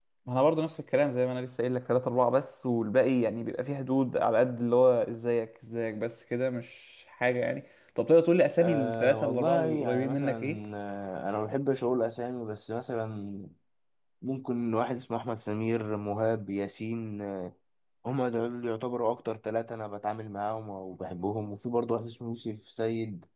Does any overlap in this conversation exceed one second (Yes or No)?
Yes